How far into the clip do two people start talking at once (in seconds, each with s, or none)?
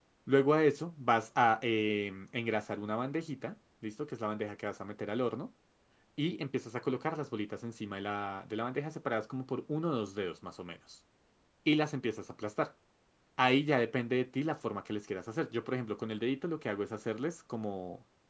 none